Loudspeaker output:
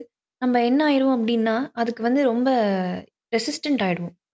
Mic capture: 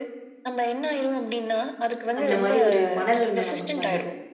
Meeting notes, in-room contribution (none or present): present